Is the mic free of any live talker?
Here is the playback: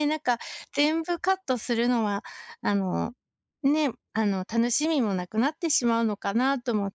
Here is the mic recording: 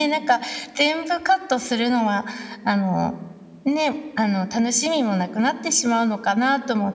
Yes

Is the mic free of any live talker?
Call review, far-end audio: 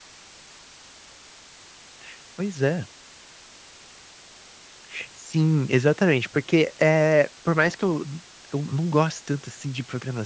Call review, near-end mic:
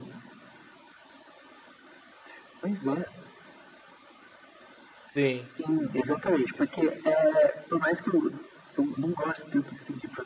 No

